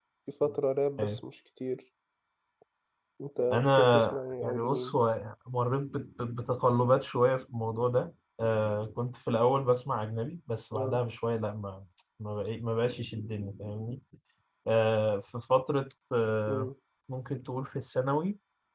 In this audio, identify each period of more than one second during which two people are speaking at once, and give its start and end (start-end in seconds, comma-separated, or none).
3.5-4.9